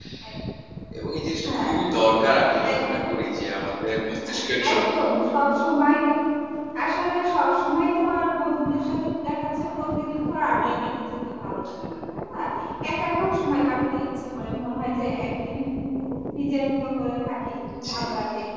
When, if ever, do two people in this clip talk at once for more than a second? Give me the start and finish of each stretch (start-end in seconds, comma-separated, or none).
none